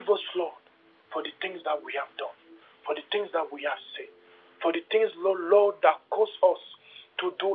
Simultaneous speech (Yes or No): No